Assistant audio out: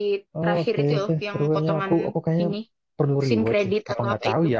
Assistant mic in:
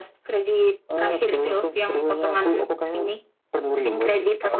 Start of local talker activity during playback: none

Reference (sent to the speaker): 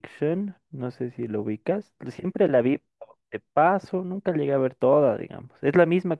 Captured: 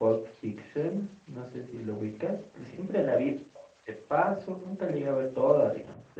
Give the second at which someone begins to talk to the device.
none

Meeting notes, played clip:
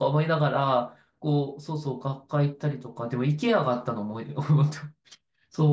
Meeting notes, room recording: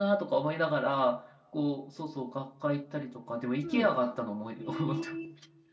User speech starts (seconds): 3.6 s

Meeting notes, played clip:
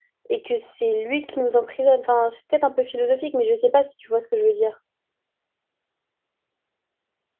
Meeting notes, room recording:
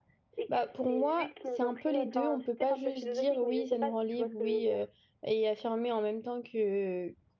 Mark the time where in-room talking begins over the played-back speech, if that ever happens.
0.5 s

